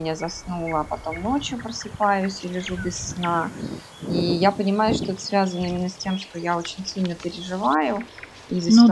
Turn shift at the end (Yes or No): No